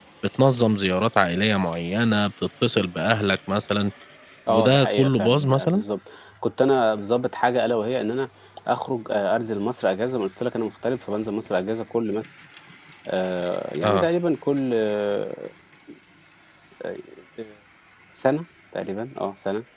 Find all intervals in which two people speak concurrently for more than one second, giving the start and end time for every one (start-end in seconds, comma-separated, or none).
4.5-5.8